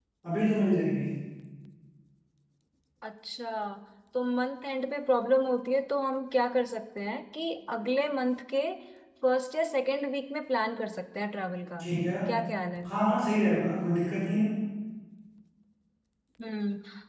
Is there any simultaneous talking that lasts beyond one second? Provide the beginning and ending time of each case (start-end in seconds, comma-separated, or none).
none